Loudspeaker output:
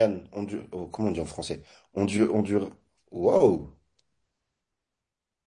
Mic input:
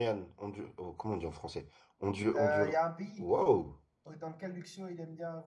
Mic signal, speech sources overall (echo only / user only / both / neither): both